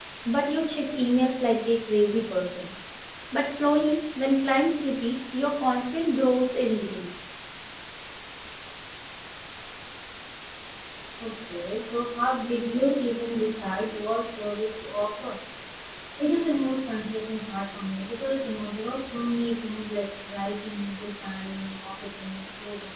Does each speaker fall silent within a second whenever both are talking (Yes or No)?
Yes